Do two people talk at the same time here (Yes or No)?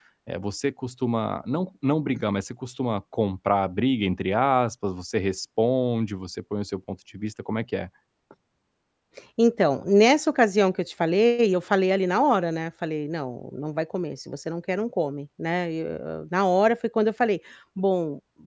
No